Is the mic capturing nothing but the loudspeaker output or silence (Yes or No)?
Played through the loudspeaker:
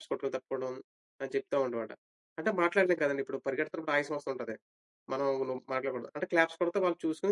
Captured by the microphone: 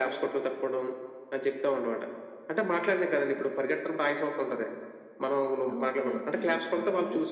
No